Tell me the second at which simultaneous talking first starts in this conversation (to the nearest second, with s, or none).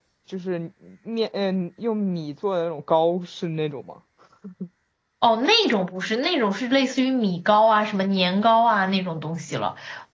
none